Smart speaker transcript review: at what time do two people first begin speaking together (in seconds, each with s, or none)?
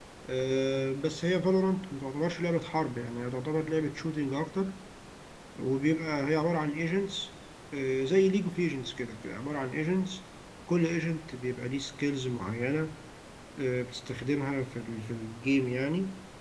none